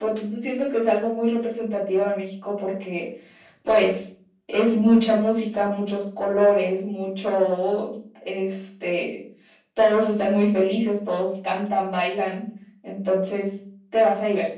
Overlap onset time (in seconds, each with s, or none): none